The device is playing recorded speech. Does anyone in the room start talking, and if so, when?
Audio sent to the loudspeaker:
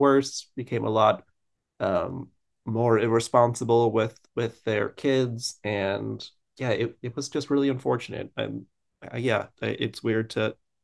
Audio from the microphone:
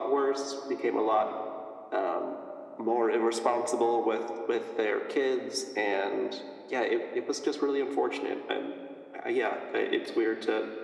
none

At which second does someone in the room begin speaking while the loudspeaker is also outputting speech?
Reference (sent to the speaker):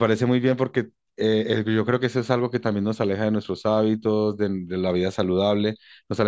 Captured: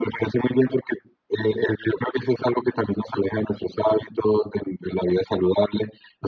none

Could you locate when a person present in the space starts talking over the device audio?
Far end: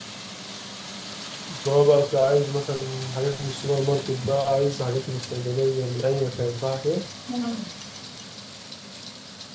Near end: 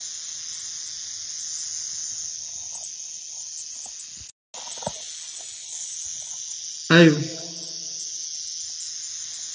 6.9 s

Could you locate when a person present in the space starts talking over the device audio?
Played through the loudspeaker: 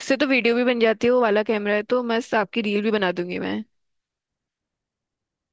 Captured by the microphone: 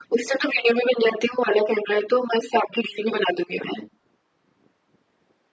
none

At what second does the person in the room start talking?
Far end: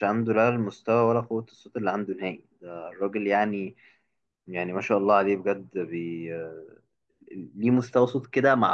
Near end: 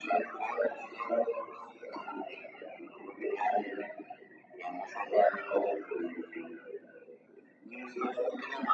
none

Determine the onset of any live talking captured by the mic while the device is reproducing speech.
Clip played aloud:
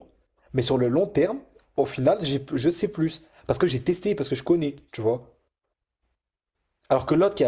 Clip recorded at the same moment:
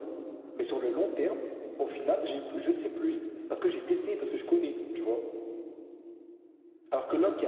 none

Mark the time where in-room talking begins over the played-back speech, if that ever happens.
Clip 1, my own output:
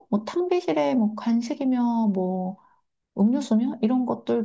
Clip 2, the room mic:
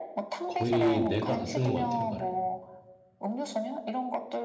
0.5 s

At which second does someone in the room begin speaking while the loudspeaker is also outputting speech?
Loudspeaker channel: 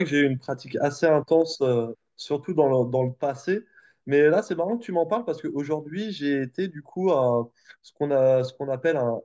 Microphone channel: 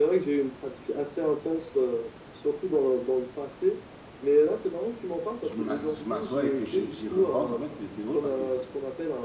5.4 s

